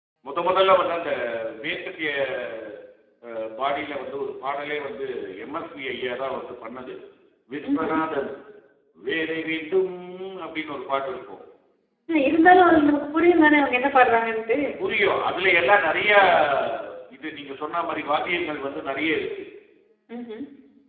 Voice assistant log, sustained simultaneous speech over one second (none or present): none